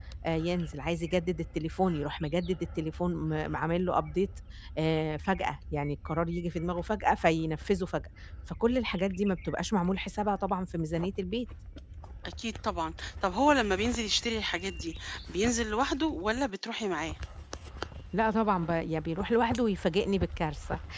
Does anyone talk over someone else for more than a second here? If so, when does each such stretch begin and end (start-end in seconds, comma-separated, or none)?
none